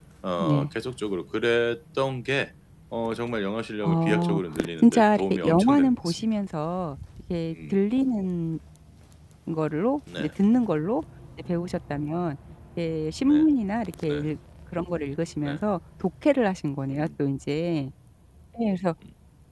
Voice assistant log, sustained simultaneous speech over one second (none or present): present